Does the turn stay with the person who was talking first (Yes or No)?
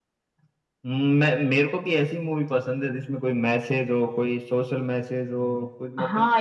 No